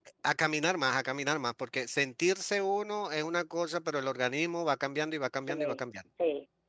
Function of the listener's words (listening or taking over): taking over